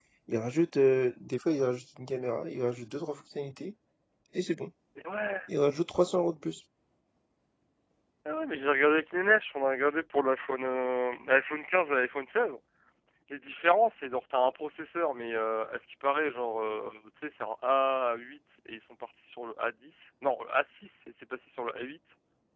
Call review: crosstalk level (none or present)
none